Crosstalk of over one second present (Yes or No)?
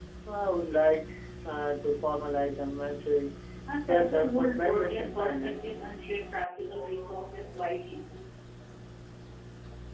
Yes